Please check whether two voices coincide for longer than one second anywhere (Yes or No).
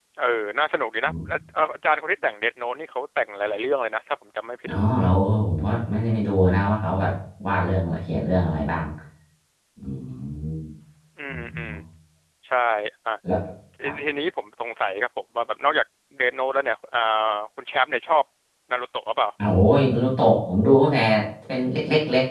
No